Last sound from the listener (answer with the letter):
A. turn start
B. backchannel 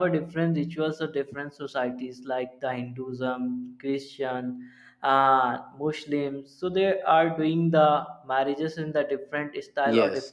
A